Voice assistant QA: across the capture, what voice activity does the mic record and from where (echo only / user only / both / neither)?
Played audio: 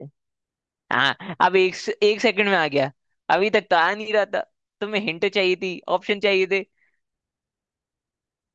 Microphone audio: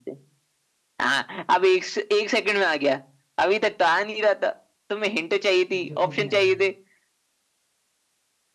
both